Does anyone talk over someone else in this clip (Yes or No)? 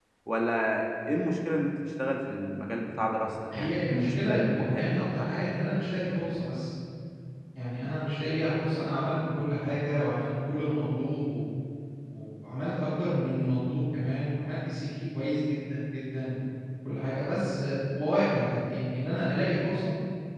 Yes